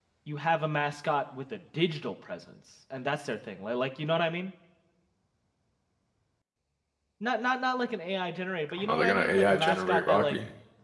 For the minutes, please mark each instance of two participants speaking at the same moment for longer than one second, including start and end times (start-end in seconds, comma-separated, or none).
8.8-10.4